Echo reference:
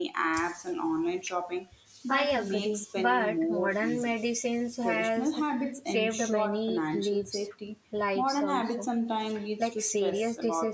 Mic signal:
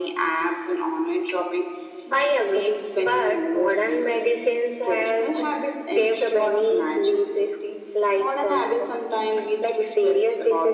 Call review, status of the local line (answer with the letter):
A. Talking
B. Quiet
B